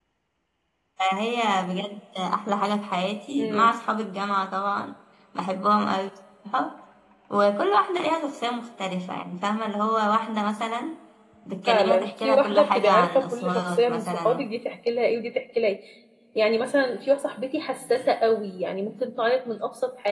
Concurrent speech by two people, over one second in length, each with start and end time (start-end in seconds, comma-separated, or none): 11.7-14.4